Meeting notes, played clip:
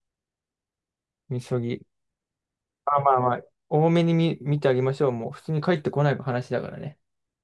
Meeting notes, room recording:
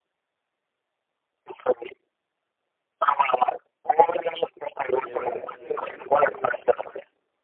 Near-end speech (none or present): present